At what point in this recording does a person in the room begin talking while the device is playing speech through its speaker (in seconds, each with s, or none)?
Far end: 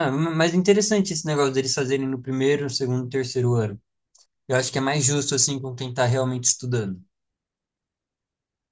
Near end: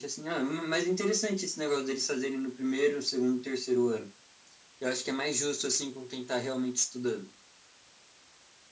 none